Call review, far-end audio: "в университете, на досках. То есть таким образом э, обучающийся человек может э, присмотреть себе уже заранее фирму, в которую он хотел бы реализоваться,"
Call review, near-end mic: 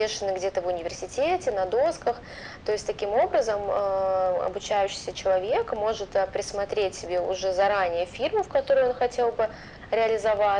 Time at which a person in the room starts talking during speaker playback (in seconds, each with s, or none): none